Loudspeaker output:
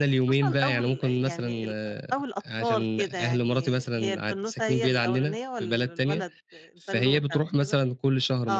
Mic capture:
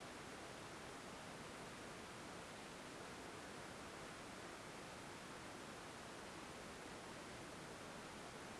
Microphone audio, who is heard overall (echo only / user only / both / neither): neither